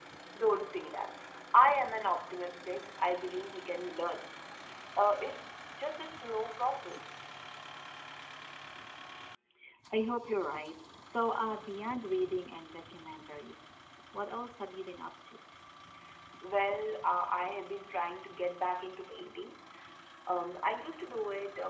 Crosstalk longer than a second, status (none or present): none